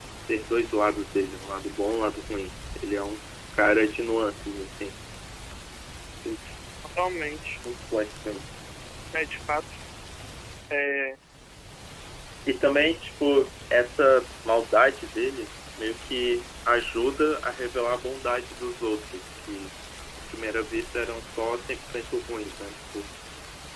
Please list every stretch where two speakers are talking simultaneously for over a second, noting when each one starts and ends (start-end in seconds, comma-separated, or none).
none